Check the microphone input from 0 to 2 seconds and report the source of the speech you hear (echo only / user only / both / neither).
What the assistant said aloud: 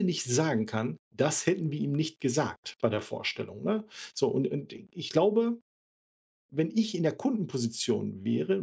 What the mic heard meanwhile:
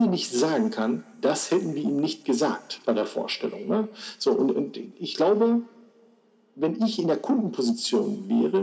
echo only